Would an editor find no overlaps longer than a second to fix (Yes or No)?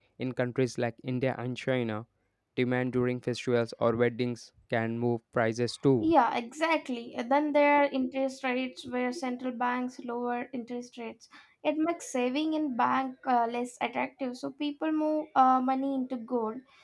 Yes